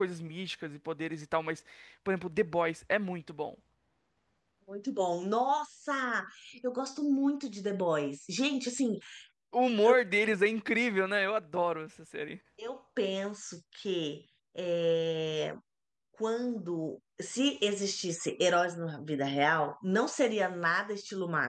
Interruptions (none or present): none